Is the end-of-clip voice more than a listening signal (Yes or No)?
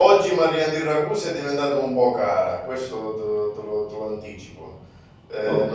No